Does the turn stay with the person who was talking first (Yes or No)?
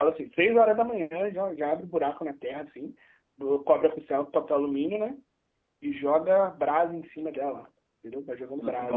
No